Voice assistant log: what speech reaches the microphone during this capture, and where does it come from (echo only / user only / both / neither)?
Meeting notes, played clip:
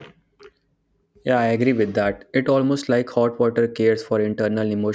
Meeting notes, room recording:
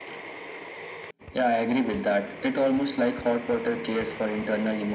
echo only